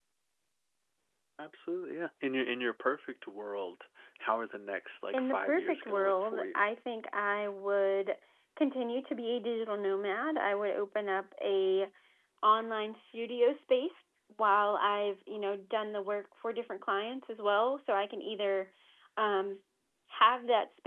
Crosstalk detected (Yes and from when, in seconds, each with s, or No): Yes, from 5.1 s